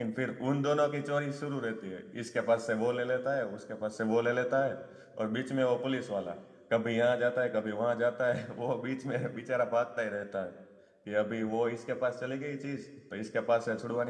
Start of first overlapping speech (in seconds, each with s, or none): none